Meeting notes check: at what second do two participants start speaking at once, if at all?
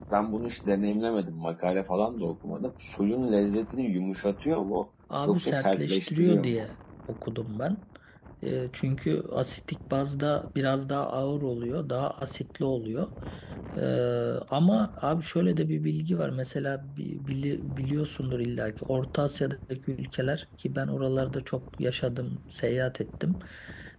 5 s

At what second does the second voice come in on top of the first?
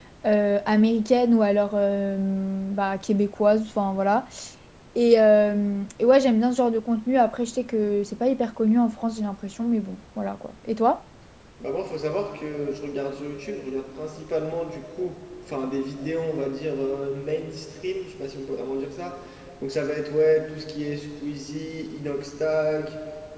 none

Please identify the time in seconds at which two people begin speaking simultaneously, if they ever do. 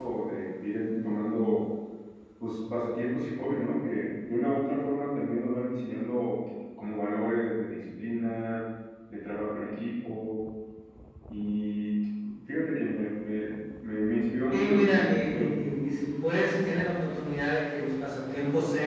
14 s

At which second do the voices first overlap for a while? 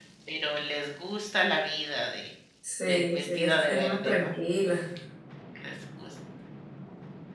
3 s

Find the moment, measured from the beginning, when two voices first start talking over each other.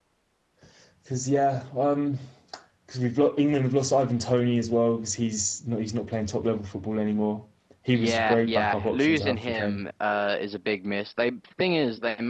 8 s

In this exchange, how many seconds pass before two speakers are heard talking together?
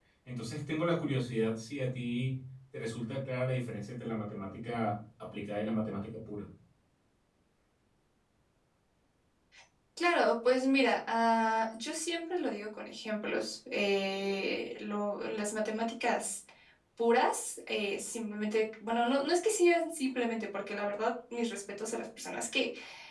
none

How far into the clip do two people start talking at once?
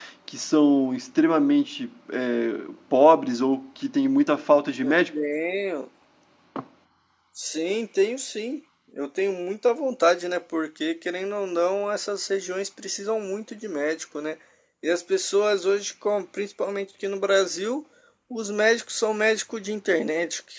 none

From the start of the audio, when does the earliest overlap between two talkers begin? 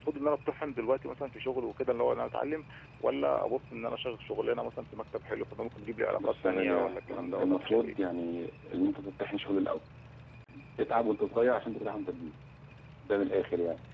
6 s

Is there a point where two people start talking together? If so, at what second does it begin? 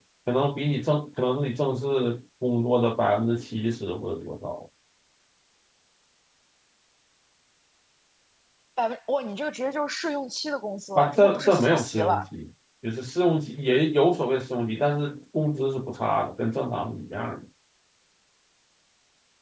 11 s

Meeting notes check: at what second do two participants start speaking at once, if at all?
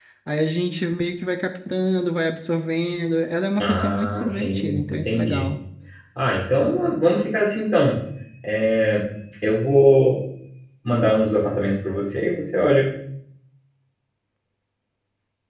4 s

